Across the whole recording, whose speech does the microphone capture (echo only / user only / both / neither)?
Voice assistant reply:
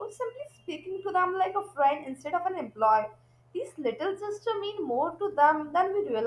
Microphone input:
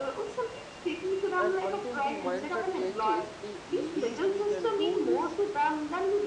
both